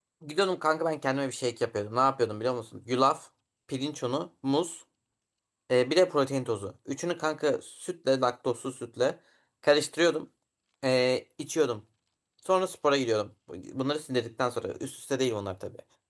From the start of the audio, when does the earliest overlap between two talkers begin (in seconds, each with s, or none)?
none